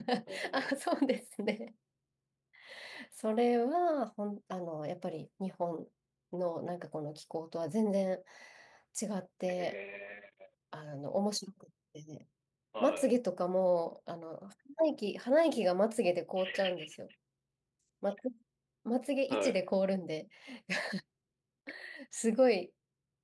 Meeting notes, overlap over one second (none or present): none